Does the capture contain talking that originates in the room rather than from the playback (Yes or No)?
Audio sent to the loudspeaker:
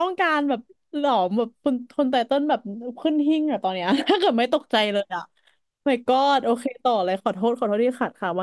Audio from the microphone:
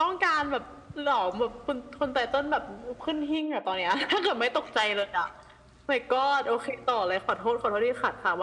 No